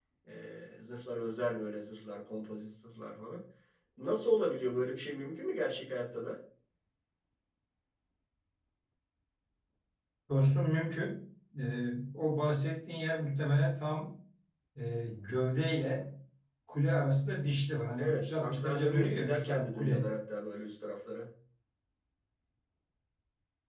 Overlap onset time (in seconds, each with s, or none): 18.0 s